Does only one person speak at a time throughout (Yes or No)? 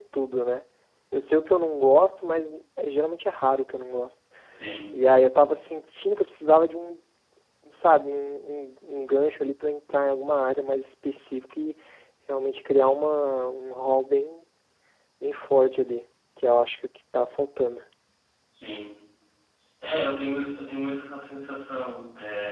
Yes